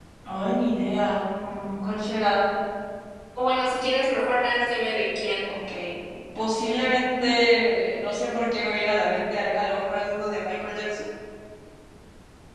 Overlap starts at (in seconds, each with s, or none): none